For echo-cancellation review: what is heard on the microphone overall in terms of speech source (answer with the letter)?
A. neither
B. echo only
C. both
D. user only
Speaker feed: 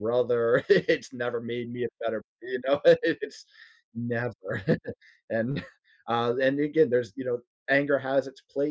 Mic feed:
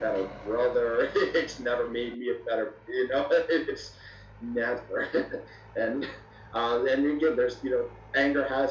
B